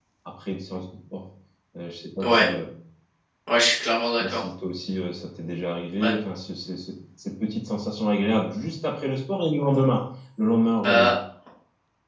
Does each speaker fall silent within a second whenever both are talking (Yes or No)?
Yes